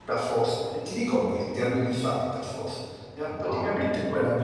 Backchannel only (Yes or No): Yes